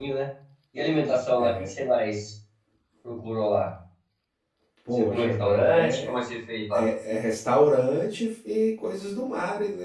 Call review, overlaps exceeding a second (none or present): present